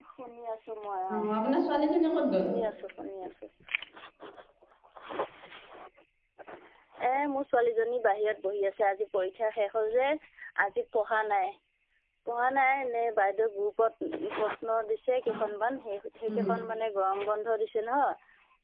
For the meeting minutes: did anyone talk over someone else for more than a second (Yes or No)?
No